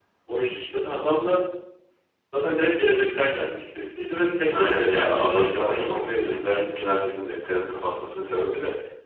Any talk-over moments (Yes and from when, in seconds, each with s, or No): Yes, from 4.5 s